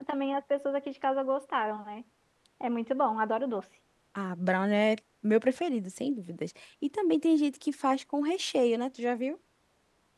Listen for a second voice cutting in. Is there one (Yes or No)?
No